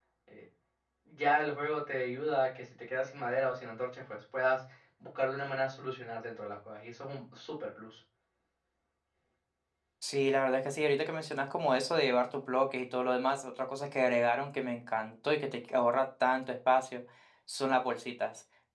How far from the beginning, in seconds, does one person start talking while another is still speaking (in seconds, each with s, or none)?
none